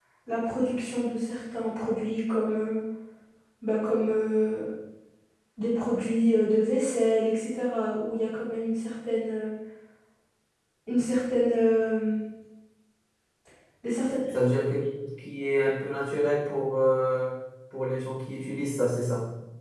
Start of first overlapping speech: none

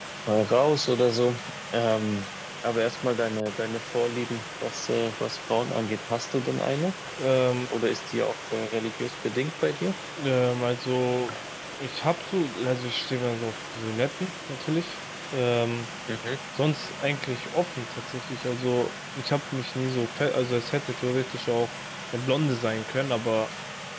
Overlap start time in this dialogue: none

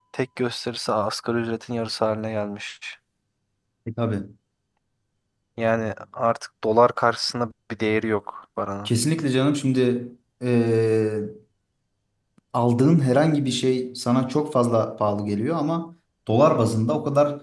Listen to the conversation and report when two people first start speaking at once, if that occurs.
none

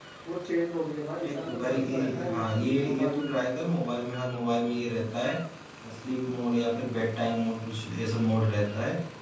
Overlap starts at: 1.2 s

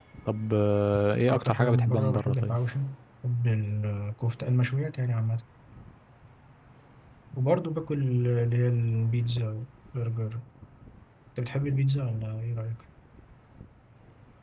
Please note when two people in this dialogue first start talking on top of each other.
1.3 s

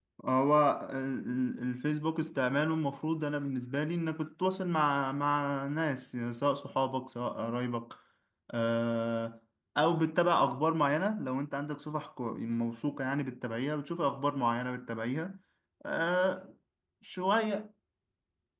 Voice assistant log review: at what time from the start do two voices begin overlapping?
none

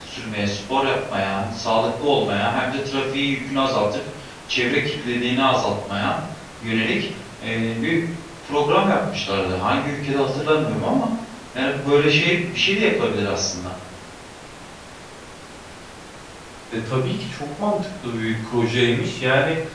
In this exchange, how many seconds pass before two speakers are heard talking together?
none

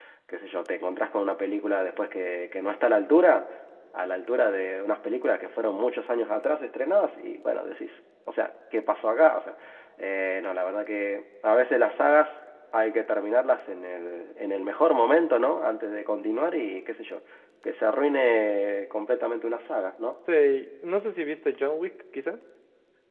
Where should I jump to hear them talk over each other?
none

